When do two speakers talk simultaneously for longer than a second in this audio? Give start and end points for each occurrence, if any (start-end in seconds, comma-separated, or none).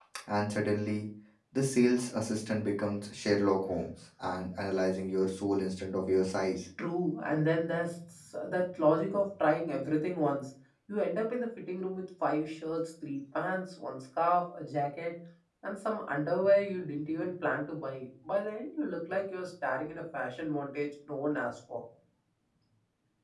none